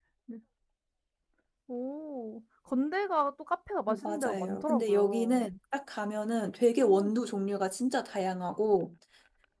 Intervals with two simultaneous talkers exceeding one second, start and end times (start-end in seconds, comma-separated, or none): 3.9-5.4